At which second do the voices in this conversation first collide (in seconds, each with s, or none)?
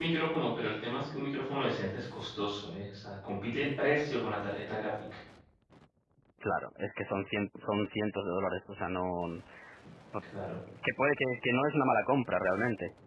none